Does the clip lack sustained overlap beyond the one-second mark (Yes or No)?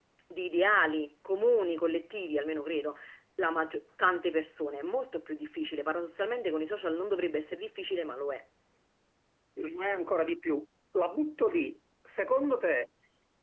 Yes